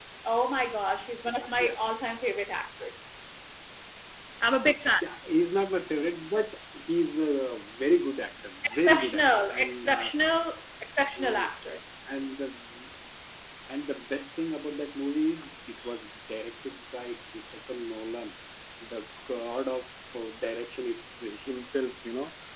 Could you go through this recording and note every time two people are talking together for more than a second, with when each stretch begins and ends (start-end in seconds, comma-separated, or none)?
8.6-10.1